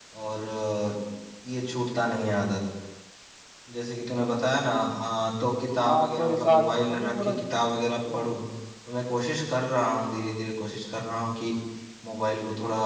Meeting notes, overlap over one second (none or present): present